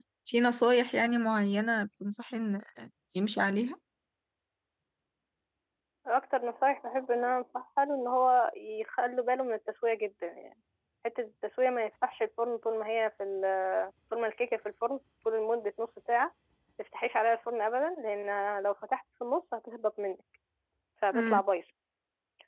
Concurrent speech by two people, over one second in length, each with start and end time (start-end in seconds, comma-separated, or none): none